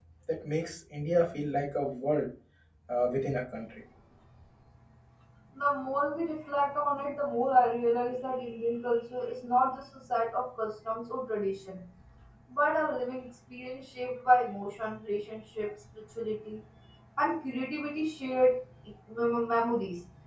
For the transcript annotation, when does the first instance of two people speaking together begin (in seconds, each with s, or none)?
none